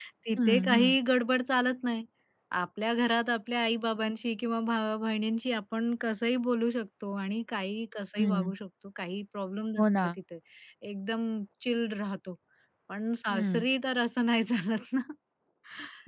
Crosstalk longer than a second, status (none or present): none